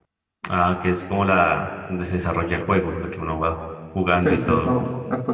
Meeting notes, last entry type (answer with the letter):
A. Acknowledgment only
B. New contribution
B